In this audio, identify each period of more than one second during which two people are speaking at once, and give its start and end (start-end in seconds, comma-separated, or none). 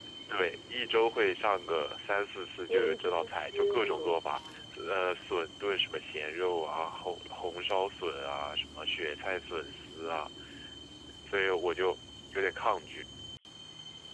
2.7-4.4